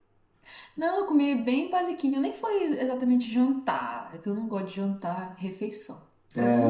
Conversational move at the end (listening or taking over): taking over